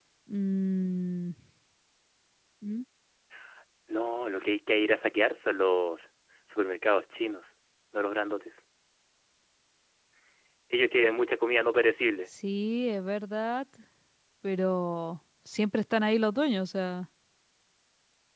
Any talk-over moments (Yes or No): No